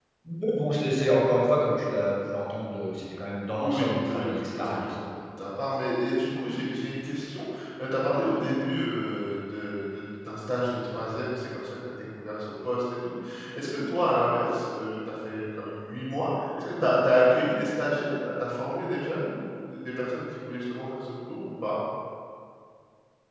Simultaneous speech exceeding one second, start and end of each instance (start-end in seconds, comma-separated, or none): 3.6-4.9